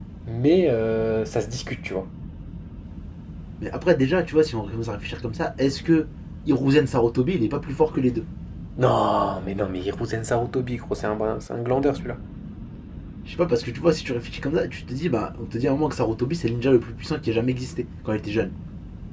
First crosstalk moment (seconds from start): none

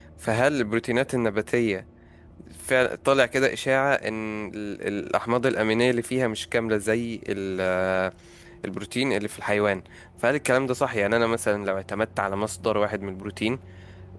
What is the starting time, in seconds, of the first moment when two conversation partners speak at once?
none

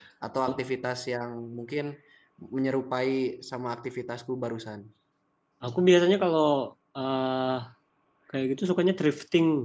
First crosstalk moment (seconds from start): none

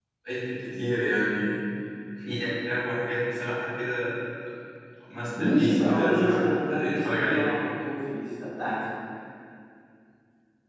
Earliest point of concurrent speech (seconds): 5 s

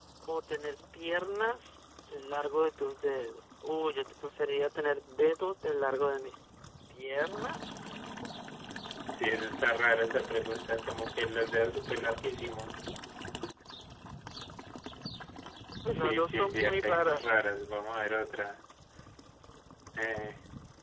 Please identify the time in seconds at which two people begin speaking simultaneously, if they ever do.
16 s

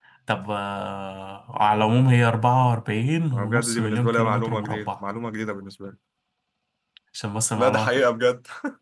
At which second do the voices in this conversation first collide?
3 s

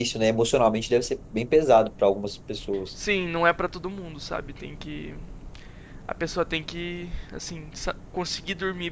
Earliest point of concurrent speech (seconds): none

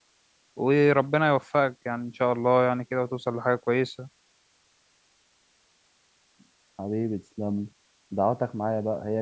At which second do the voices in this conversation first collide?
none

